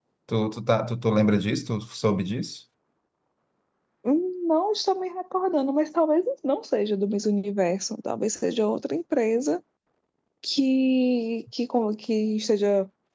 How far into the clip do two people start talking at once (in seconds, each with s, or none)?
none